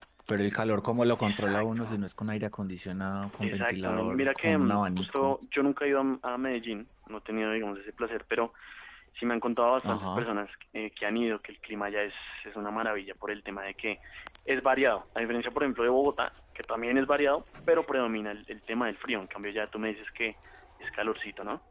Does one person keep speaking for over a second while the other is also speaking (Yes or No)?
Yes